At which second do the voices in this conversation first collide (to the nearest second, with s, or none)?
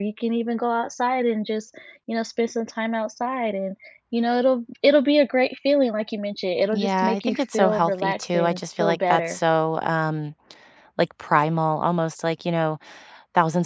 7 s